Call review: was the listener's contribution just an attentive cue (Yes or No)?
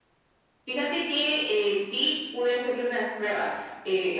Yes